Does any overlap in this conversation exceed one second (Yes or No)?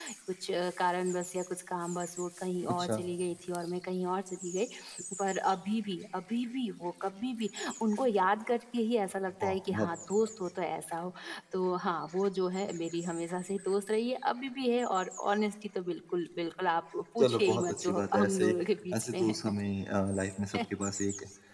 Yes